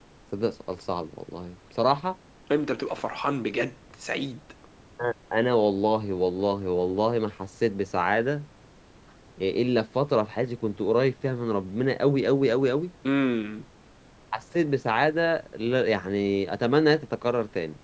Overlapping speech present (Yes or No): No